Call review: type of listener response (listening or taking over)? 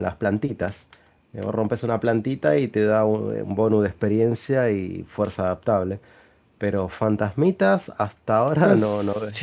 taking over